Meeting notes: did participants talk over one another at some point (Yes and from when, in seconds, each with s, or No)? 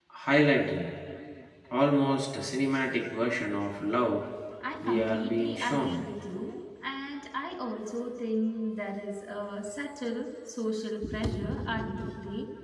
Yes, from 4.8 s